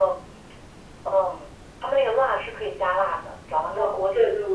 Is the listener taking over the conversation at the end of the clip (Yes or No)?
Yes